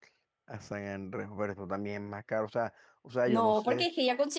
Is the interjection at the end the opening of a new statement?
Yes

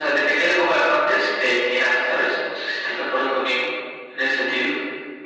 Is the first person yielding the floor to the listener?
Yes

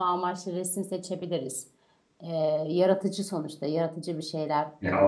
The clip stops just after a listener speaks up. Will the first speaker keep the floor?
No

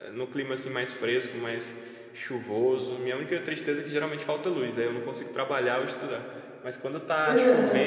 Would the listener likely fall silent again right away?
Yes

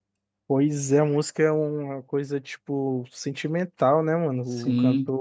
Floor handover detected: Yes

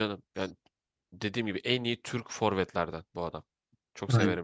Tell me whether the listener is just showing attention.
No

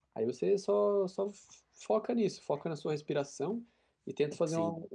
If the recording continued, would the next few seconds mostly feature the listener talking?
No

